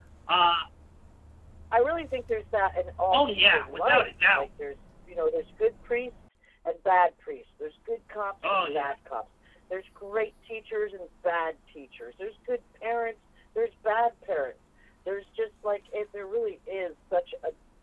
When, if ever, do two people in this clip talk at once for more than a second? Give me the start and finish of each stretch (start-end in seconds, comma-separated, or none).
3.1-4.5